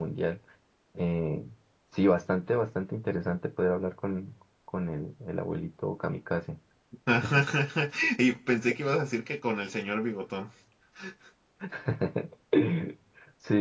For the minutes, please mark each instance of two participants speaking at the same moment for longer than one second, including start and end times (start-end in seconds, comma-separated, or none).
none